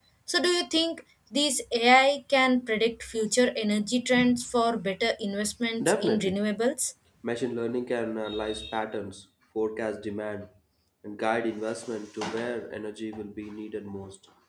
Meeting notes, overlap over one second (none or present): none